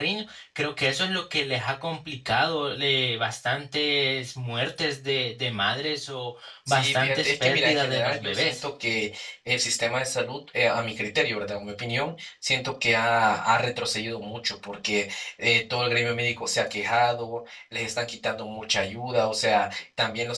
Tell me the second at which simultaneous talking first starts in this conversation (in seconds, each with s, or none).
6.7 s